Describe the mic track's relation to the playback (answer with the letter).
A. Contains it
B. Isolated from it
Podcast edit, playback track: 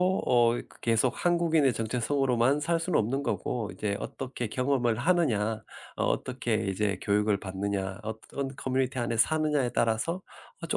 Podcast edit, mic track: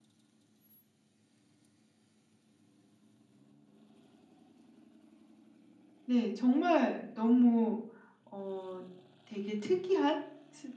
B